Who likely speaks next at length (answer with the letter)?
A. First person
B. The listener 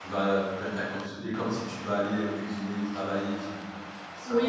B